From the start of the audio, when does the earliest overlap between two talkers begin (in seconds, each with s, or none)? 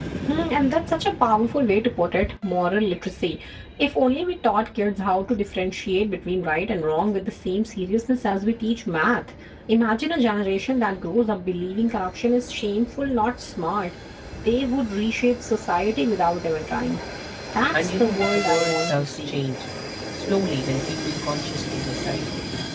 17.7 s